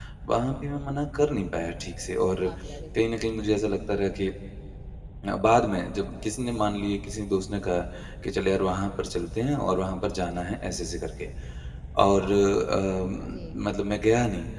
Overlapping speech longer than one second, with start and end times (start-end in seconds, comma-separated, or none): none